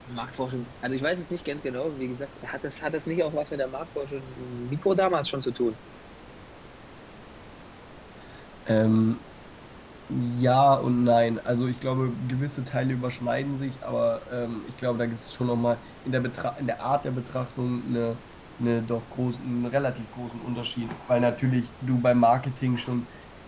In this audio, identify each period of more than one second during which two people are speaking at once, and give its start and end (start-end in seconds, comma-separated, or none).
none